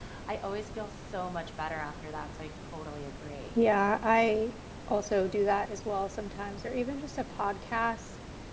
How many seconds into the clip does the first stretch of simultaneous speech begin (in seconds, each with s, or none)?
none